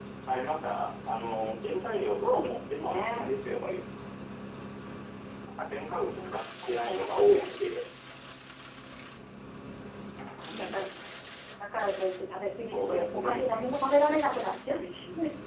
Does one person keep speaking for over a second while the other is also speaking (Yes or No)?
Yes